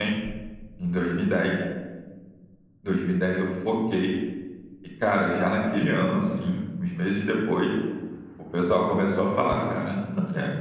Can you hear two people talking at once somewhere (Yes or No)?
No